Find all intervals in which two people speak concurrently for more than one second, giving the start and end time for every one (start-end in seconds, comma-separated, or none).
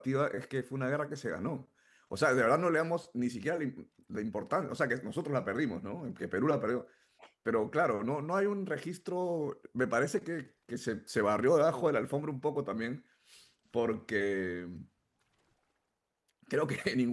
none